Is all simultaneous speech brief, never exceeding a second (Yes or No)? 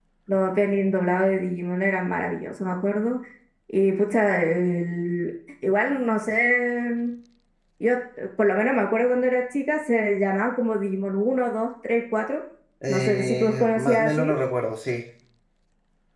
No